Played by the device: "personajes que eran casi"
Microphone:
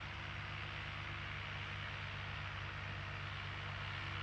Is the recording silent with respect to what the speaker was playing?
Yes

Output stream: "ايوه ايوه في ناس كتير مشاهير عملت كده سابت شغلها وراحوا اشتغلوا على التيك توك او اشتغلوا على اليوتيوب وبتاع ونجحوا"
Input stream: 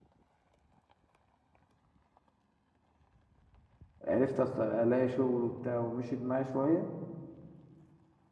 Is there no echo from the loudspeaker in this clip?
Yes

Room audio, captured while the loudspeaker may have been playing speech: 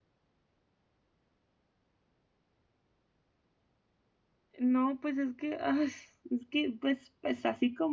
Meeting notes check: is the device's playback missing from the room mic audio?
Yes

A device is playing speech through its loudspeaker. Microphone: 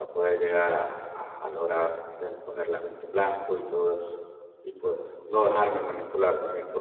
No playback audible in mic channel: Yes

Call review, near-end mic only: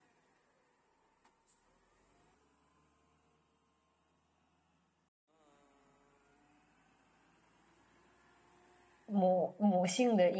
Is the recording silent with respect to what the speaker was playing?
Yes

